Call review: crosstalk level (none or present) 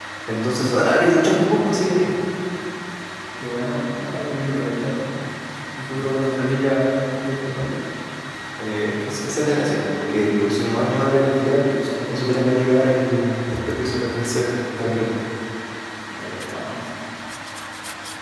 none